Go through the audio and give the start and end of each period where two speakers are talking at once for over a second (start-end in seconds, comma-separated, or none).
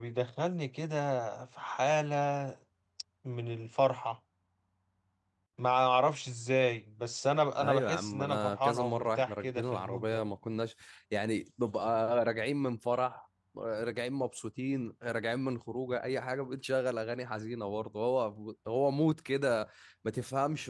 7.6-10.2